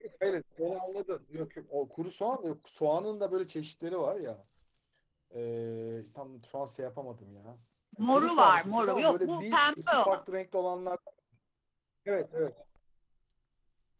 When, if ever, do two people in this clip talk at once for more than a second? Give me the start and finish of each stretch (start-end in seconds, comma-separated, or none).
8.0-10.2